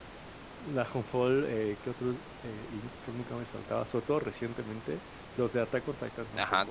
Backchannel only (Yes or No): No